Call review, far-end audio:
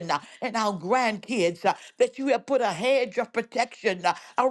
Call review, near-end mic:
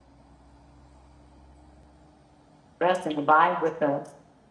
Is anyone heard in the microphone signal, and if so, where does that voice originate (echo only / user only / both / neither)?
user only